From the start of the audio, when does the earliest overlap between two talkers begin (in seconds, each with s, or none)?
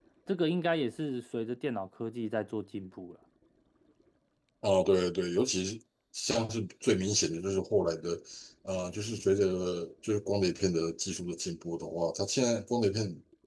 none